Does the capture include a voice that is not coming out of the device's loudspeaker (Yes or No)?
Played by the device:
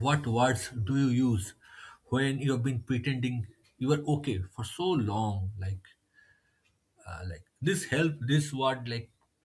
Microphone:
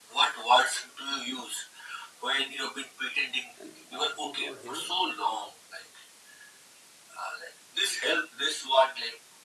Yes